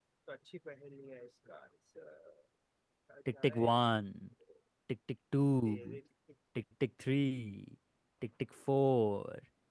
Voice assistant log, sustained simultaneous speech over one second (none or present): none